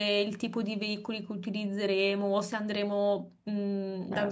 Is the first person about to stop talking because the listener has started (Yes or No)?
No